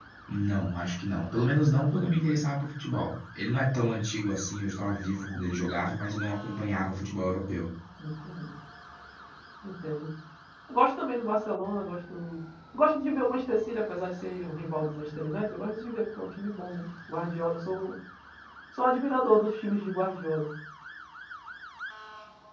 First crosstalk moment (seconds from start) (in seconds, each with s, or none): none